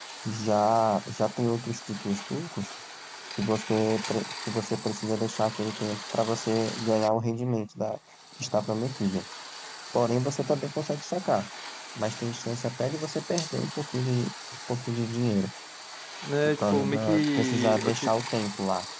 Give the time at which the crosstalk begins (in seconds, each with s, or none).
16.4 s